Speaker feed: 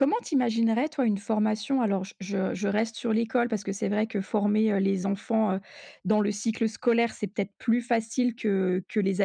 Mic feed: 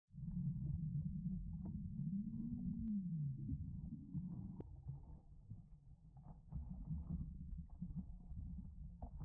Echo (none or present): none